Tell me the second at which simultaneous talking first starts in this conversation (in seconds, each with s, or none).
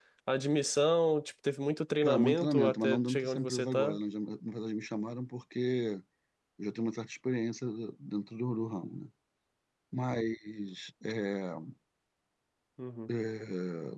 2.0 s